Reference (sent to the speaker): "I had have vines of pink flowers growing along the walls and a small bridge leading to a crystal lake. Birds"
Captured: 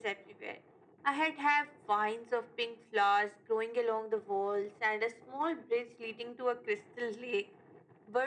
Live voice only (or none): none